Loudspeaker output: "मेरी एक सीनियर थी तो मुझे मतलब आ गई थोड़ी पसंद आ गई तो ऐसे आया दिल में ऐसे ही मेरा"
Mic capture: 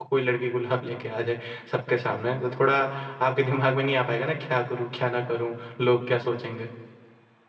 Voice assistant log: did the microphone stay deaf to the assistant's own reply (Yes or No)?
Yes